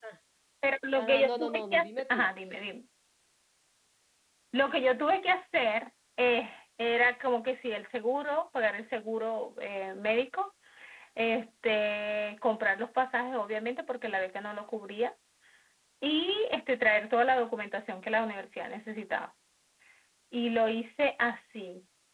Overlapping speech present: Yes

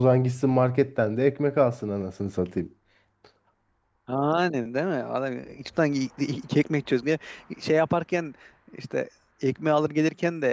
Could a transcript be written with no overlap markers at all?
Yes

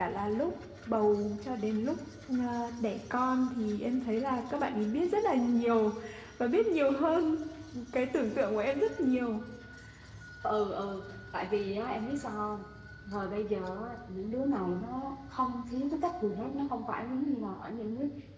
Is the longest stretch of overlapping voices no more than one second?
Yes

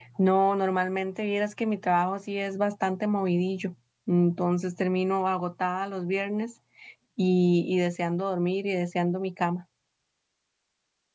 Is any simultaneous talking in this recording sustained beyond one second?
No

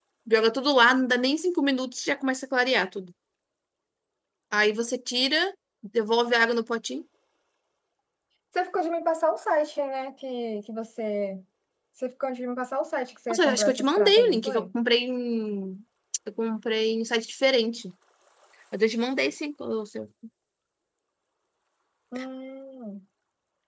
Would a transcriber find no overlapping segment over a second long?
No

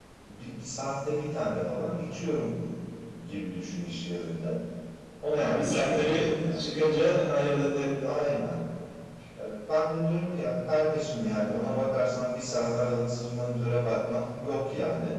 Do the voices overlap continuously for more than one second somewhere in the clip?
Yes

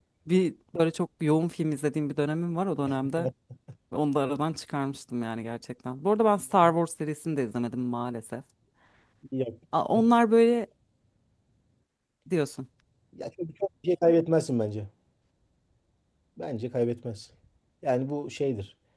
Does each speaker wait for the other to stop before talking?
Yes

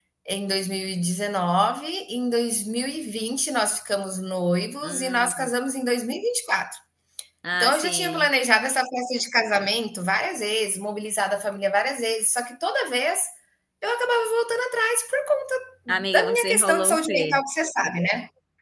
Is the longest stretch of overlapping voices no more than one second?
No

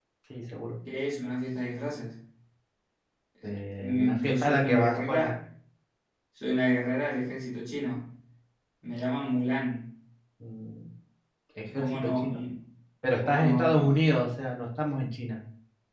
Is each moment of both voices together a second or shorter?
No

